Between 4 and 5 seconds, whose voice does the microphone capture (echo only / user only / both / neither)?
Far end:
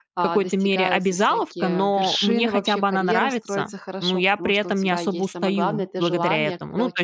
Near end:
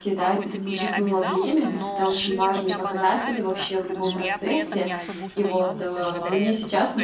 both